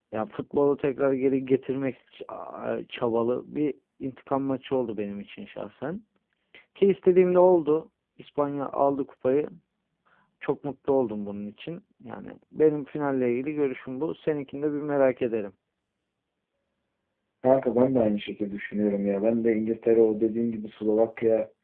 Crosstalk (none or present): none